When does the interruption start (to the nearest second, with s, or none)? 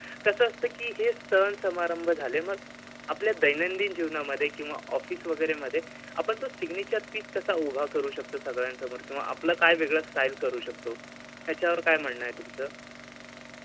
none